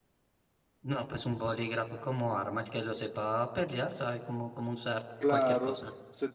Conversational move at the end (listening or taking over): taking over